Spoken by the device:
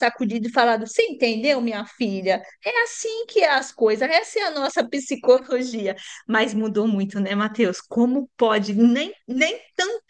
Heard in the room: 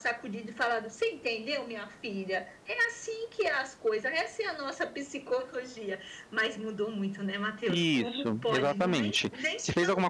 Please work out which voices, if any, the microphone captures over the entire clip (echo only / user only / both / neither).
both